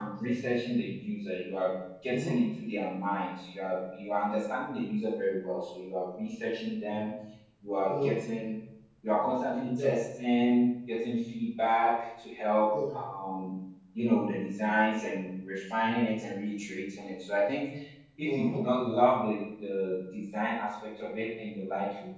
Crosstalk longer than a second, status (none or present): none